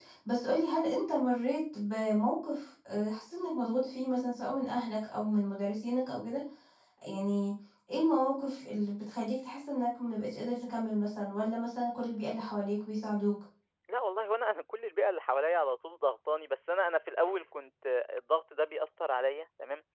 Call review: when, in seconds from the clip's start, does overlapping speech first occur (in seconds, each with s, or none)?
none